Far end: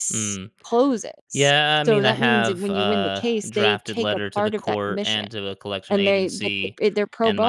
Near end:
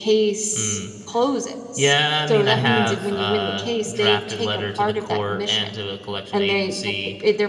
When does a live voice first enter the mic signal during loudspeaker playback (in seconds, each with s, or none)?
2.5 s